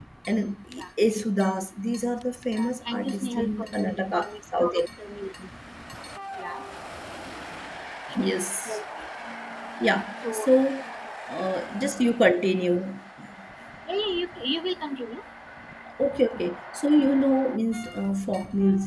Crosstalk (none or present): present